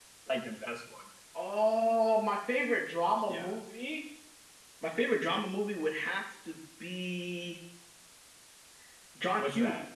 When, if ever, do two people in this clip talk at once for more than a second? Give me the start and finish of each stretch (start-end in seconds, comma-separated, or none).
none